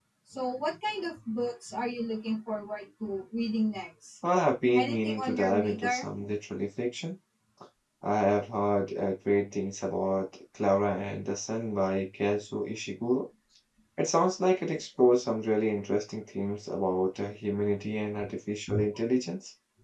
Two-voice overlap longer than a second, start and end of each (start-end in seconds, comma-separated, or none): 4.8-6.1